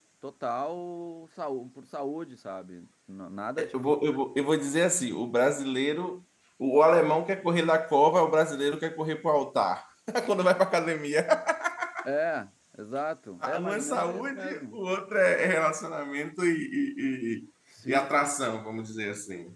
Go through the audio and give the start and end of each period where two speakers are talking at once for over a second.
13.6-14.8

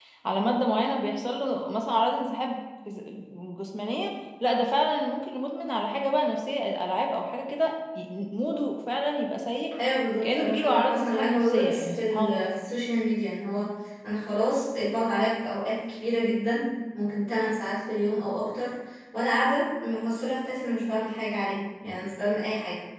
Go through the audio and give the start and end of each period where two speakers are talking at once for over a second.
10.2-12.5

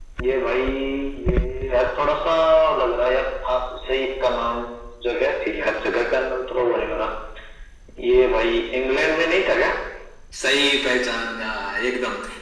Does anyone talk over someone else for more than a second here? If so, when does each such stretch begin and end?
none

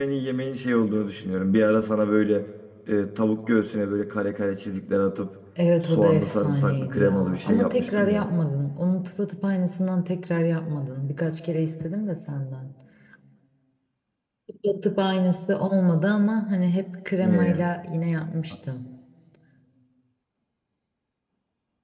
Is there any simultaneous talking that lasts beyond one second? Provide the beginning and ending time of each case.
5.9-8.3

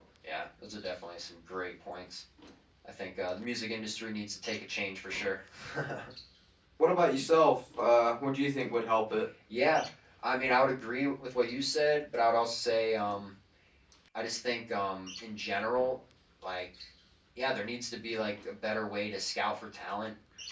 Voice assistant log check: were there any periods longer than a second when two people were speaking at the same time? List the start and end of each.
none

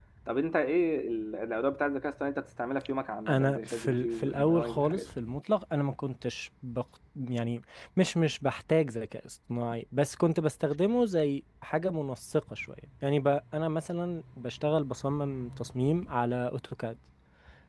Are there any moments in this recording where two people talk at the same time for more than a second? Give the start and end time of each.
3.3-5.1

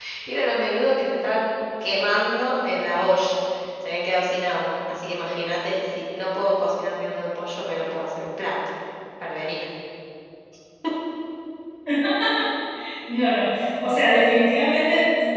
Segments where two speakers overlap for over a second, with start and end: none

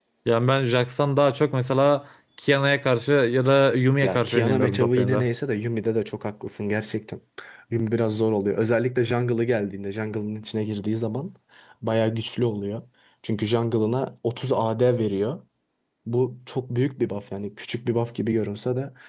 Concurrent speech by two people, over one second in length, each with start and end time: 4.0-5.2

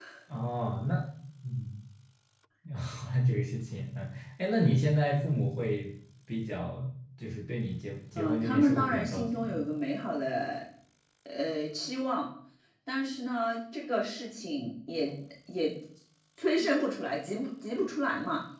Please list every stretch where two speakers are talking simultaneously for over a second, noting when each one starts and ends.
8.2-9.6

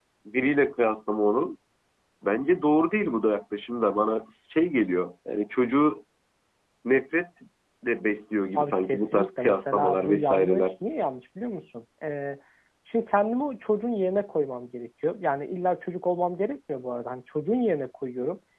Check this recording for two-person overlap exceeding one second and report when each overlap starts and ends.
8.6-10.7

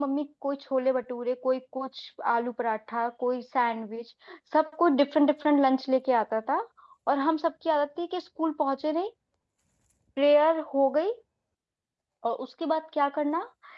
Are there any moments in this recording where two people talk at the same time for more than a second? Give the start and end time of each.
none

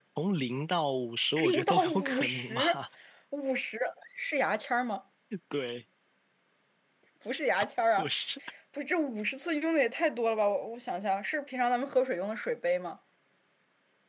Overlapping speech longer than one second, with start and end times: 1.4-2.8

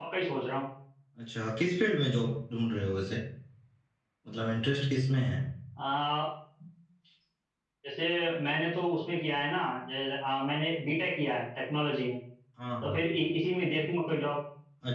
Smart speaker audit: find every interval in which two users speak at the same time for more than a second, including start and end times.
none

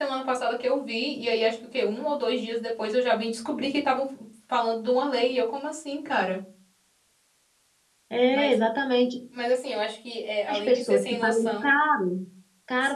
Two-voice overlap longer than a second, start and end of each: 10.5-11.7

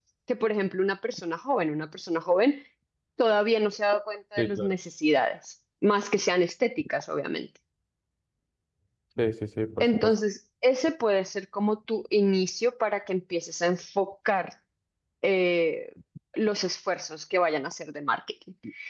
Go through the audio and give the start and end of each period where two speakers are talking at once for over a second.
none

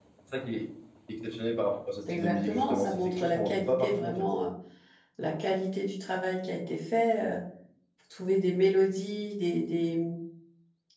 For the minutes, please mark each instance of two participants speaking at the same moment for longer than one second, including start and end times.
2.1-4.3

